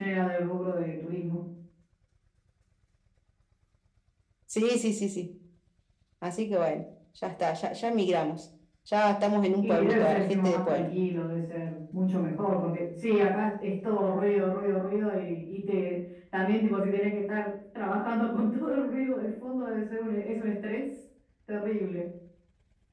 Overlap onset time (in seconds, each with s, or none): 9.6 s